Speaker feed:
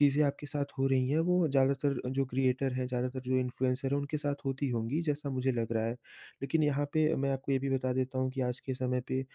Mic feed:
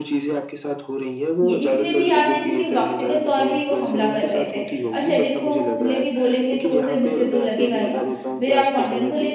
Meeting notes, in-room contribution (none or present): present